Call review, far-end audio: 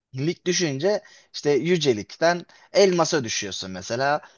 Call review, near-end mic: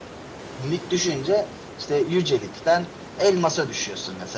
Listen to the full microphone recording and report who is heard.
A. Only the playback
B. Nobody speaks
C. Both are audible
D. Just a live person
A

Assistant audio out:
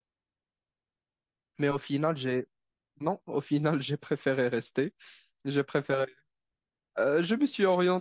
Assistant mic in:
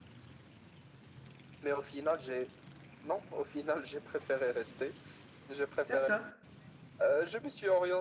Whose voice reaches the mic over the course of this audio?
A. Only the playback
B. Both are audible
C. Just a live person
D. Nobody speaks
B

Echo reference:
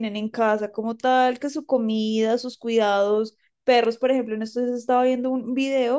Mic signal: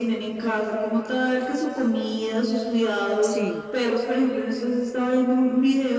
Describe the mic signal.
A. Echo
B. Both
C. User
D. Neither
B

